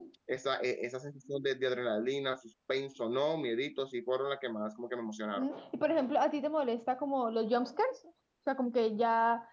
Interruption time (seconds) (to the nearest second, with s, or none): none